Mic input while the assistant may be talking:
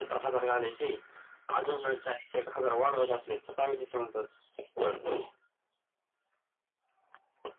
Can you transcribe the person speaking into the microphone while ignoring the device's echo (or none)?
none